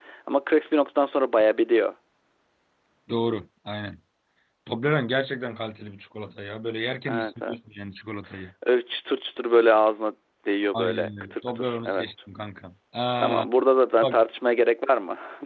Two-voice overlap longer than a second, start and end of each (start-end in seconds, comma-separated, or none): 10.7-12.1